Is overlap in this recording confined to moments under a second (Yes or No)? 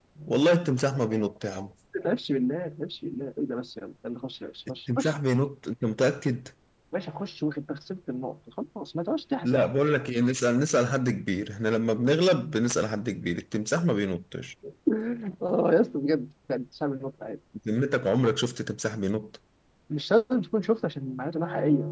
Yes